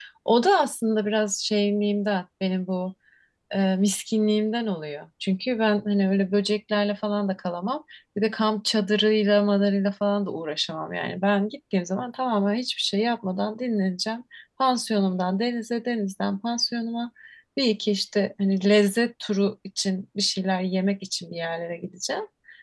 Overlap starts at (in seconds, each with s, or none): none